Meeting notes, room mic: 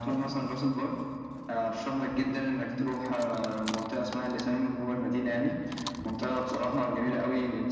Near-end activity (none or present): none